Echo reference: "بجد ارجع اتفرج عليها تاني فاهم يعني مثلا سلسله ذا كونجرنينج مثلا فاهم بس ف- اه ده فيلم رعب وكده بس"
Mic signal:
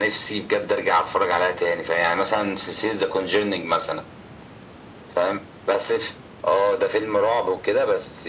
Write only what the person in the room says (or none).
none